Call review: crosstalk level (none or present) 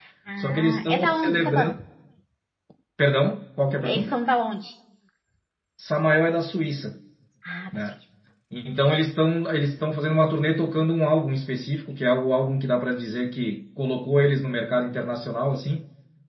present